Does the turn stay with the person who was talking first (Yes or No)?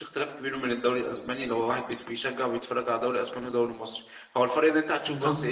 Yes